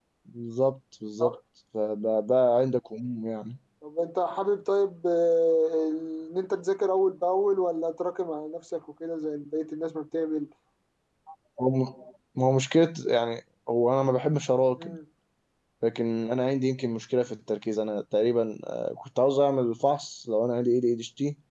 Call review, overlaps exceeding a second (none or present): none